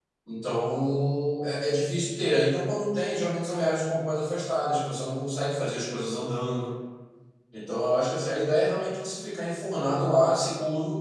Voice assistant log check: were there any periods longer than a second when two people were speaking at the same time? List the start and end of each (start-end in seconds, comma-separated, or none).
none